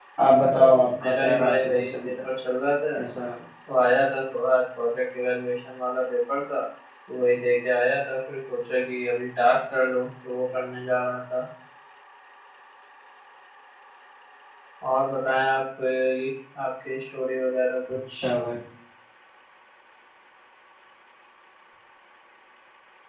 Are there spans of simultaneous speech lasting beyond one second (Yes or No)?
Yes